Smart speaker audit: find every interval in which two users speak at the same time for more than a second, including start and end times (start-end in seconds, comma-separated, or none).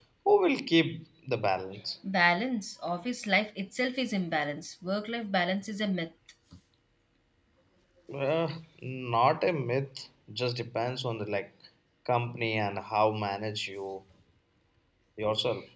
none